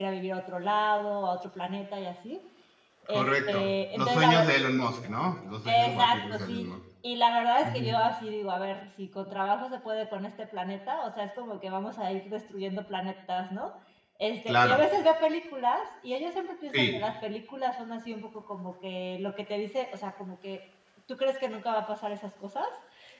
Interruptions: present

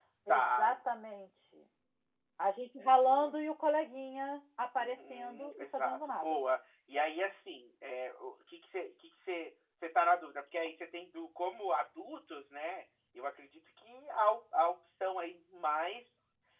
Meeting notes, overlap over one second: present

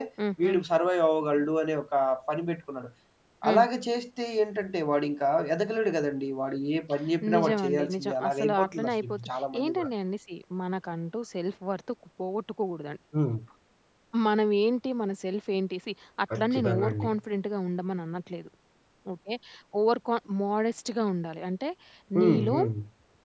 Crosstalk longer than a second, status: present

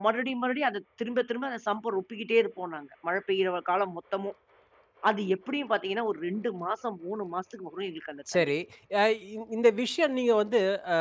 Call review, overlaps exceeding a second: none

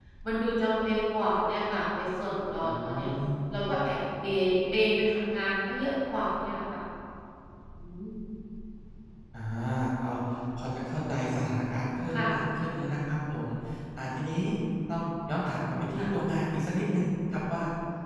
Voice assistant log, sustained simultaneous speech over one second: none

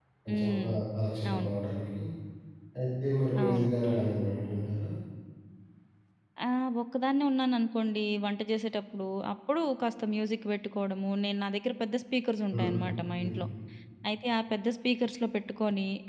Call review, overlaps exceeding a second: none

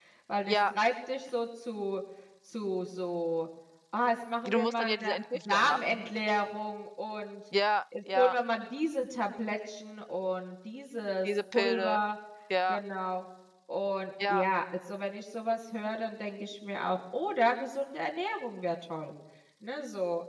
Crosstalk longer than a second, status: present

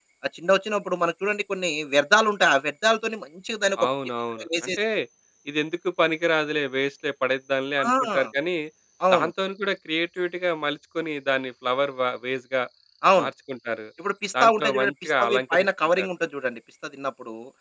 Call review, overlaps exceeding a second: present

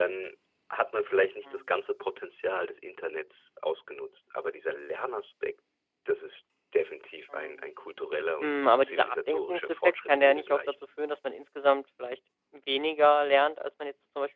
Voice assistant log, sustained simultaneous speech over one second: present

